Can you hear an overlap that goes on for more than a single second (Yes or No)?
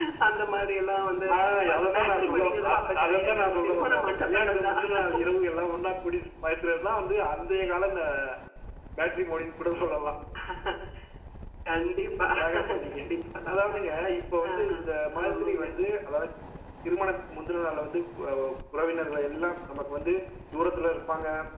Yes